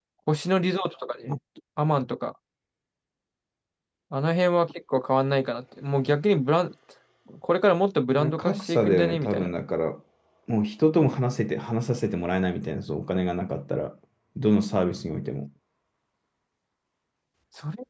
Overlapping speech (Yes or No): Yes